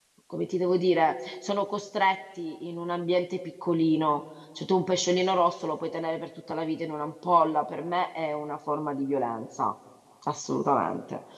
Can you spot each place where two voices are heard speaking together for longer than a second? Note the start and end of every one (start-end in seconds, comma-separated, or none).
none